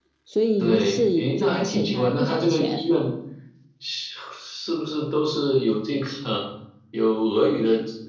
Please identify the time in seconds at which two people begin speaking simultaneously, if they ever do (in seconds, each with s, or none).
0.6 s